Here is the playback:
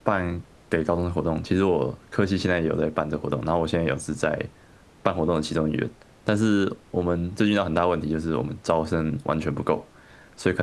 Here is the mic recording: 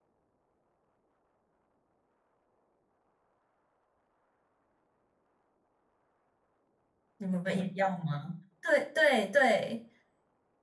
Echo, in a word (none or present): none